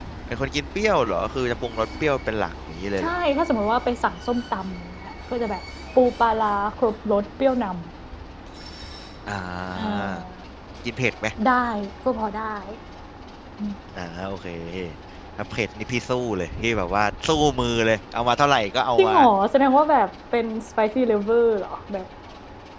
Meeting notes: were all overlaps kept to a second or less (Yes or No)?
Yes